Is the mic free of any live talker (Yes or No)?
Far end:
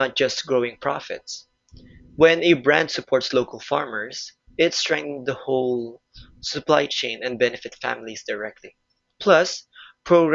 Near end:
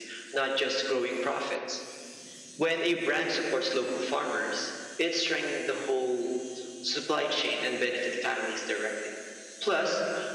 Yes